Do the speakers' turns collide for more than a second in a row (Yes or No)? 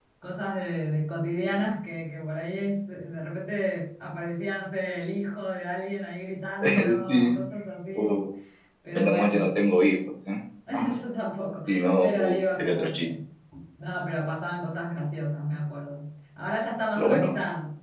Yes